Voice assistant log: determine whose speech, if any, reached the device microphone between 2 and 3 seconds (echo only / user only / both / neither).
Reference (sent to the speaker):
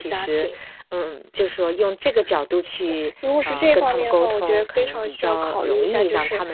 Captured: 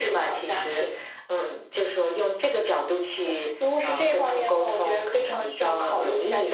echo only